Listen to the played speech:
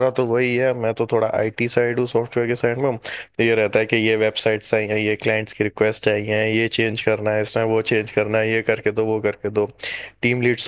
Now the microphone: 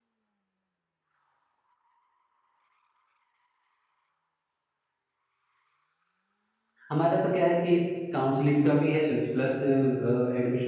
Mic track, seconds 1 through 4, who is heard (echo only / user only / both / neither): neither